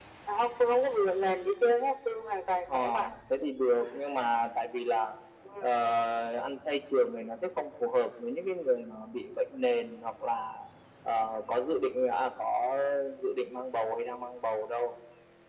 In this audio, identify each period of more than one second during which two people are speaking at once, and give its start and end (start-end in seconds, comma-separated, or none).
none